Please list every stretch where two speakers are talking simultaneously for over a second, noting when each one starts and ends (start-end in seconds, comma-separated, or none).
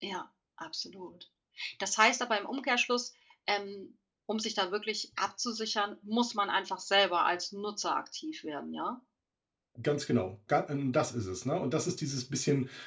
none